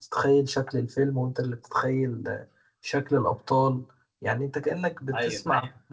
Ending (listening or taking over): listening